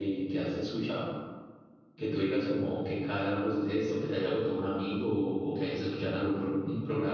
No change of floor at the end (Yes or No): No